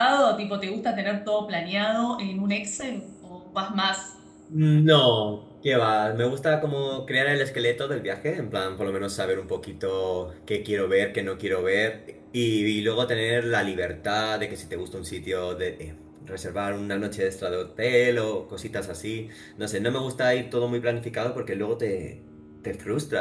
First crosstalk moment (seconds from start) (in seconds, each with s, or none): none